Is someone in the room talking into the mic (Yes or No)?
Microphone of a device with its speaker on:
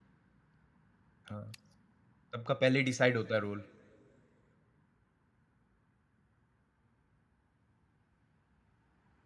Yes